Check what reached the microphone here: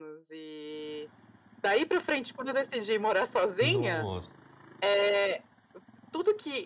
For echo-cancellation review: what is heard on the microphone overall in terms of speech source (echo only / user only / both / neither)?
both